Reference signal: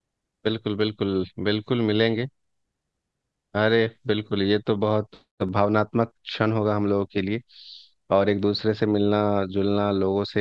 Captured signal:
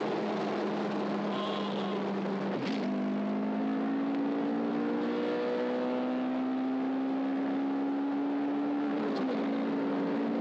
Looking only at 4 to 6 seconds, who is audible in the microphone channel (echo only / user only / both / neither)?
neither